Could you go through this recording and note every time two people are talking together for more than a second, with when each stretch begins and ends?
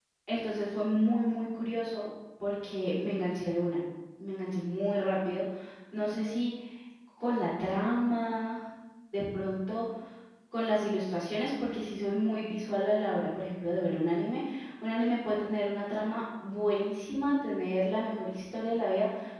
none

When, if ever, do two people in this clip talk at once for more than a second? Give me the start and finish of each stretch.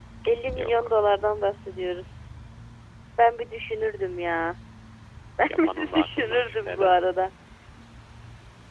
5.5-7.0

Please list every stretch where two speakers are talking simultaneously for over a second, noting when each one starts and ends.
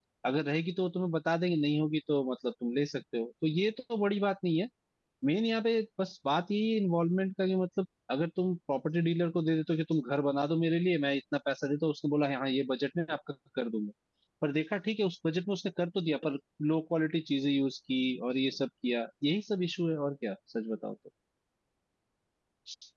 none

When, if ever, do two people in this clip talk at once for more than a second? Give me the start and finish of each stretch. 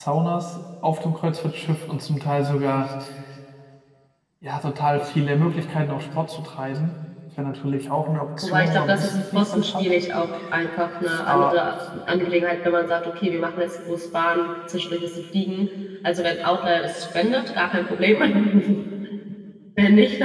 8.4-9.9

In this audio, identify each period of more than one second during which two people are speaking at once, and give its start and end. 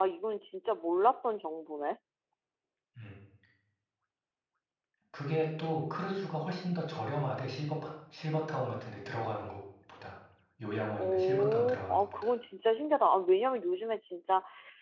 11.0-12.3

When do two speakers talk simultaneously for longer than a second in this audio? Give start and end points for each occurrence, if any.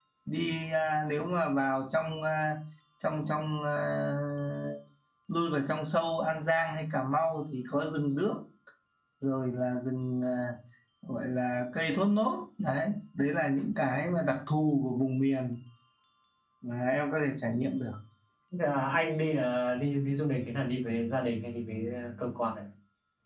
none

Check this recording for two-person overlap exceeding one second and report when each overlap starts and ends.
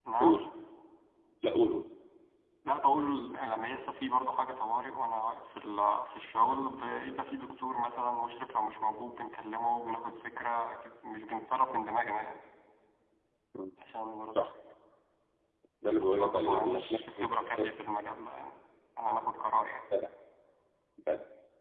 16.0-17.7

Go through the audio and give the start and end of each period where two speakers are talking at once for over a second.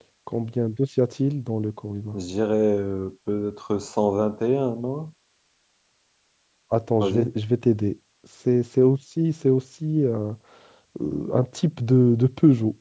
none

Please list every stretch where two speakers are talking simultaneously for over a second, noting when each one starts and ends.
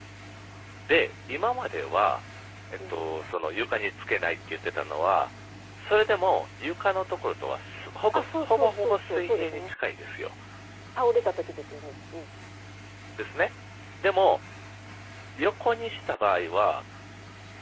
8.1-9.7

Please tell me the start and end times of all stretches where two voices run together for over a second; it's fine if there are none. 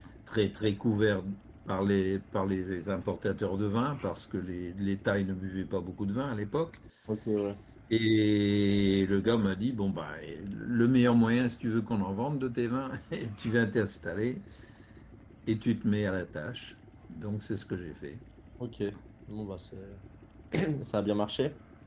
none

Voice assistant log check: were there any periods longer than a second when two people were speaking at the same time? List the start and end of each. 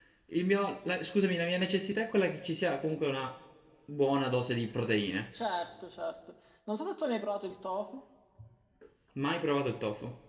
none

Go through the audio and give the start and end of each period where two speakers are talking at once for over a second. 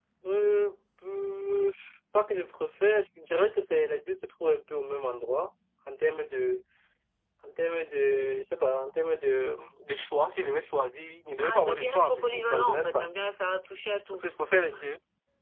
11.4-13.1

